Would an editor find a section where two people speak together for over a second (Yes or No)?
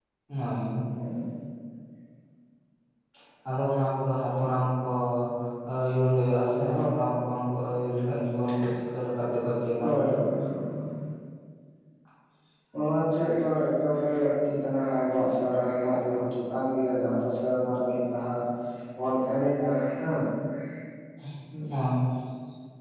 No